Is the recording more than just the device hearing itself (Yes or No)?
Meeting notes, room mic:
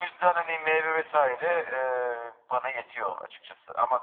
No